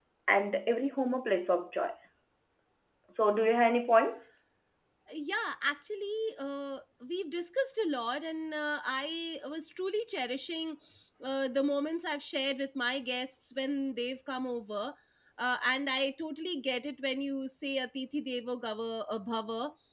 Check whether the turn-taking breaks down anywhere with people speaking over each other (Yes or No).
No